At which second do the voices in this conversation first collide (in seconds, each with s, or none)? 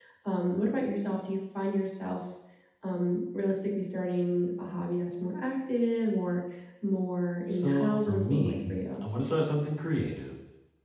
7.5 s